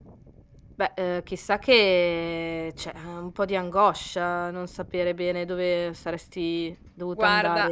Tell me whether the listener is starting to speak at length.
Yes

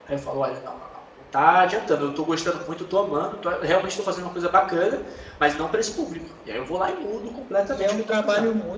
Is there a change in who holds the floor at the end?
Yes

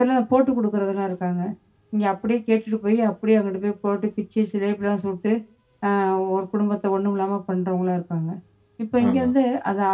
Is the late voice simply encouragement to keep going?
Yes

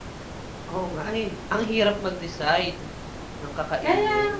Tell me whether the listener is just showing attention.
No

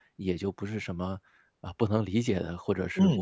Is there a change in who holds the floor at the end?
Yes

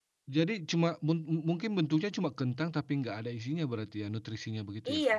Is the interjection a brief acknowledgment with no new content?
No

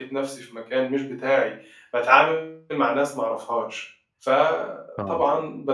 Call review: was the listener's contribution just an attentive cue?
Yes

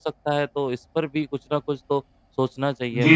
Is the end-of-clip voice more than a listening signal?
Yes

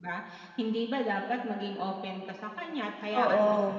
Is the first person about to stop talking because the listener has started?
No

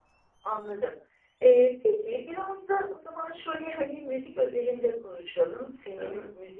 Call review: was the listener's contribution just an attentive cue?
Yes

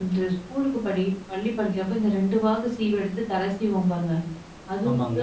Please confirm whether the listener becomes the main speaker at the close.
No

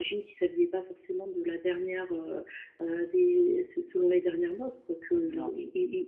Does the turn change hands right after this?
No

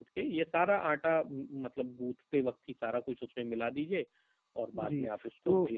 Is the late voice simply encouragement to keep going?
No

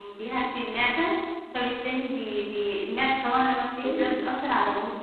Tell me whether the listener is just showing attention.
Yes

